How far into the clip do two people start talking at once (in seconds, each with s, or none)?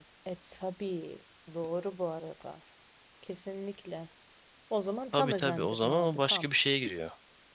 5.1 s